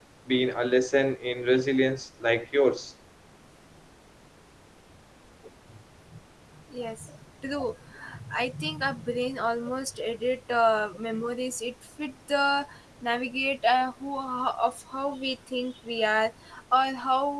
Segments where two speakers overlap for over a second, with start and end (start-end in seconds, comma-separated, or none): none